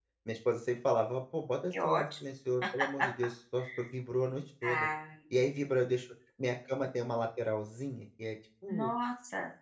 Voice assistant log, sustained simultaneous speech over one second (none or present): none